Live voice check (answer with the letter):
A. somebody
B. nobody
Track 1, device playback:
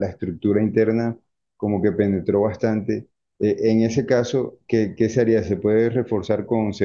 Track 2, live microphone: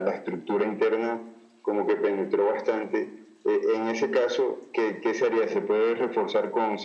B